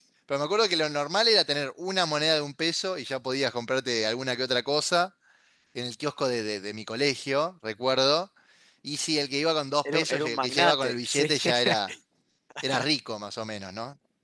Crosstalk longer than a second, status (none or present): present